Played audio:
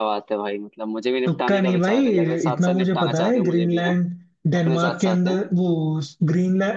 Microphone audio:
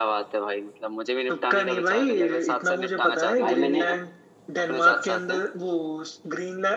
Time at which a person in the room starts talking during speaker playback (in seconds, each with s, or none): 3.4 s